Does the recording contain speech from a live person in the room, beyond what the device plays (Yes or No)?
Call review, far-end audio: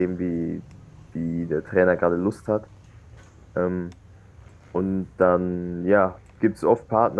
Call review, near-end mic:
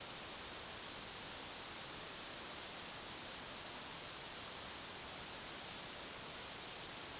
No